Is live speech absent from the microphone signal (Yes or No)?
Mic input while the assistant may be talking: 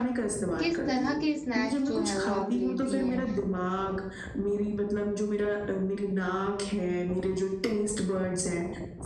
No